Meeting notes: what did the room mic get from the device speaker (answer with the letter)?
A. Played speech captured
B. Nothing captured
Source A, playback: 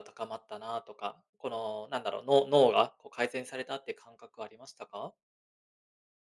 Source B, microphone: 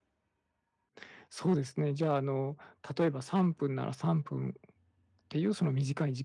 B